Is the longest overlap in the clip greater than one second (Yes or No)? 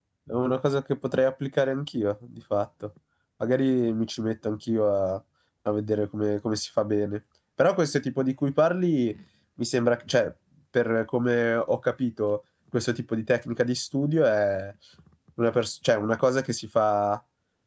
No